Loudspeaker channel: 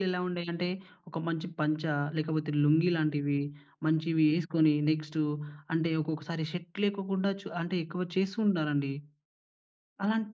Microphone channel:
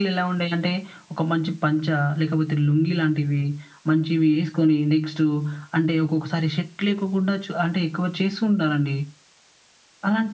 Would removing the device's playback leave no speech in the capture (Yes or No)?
Yes